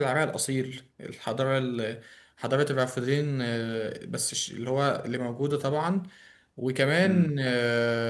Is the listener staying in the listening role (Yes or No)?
Yes